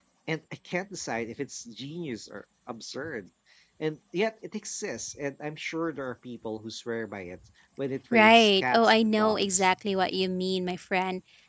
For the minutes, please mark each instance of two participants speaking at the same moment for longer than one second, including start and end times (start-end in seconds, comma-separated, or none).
8.1-9.7